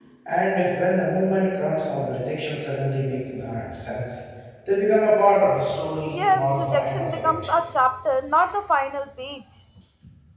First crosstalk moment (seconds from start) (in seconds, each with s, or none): 6.1 s